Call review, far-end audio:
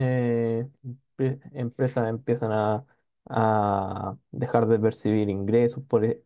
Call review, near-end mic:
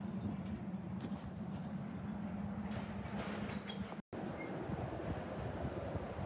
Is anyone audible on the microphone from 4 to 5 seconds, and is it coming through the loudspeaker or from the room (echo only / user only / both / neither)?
neither